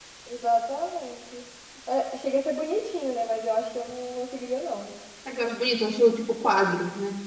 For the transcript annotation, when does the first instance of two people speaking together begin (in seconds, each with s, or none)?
none